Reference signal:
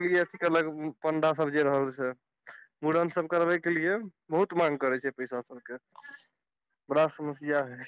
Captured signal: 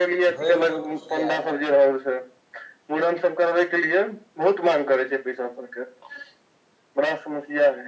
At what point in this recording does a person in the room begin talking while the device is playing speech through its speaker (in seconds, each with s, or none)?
0.3 s